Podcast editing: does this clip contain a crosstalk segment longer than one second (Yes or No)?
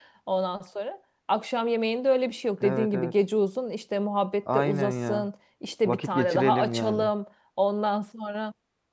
Yes